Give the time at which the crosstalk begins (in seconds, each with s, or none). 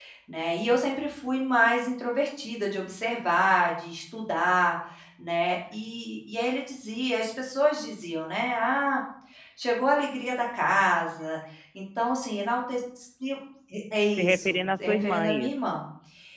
14.2 s